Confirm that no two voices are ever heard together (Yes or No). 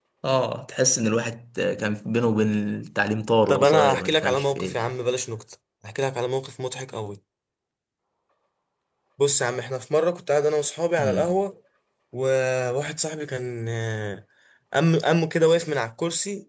No